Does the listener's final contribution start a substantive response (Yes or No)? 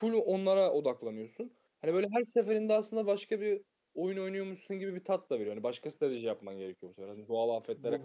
Yes